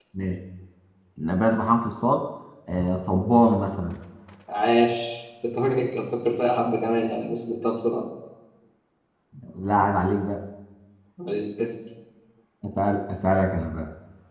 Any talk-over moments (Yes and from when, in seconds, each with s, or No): No